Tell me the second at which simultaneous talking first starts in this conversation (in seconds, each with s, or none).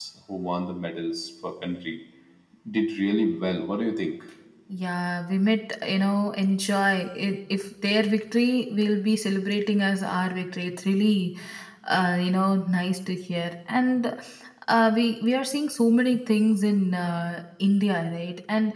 none